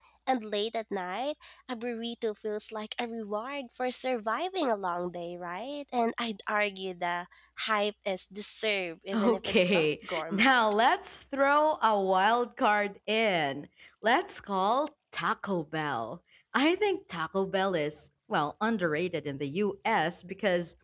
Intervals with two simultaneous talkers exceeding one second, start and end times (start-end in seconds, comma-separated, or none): 9.1-10.5